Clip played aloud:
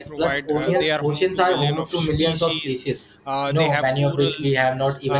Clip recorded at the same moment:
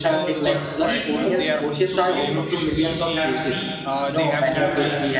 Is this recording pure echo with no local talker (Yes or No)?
No